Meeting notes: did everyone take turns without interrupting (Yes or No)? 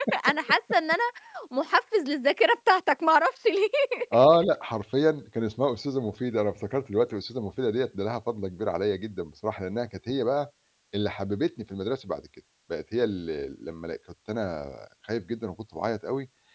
Yes